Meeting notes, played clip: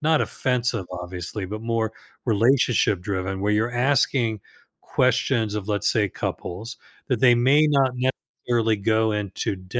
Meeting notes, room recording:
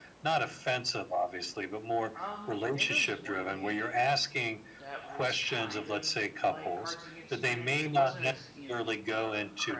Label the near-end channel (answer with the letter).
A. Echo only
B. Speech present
B